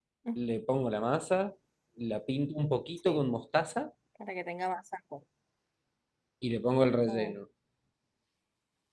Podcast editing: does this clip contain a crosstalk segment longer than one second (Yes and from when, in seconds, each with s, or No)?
No